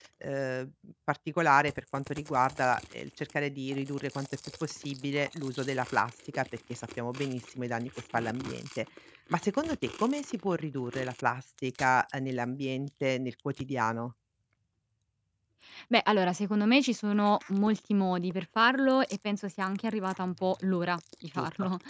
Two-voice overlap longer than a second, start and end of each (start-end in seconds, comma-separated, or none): none